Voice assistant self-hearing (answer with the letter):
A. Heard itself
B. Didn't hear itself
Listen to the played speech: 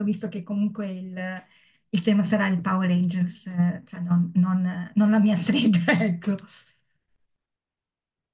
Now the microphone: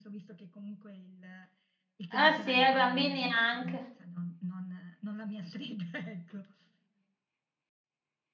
A